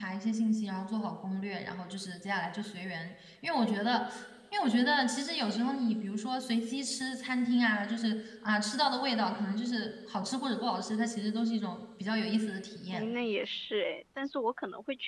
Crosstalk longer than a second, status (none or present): none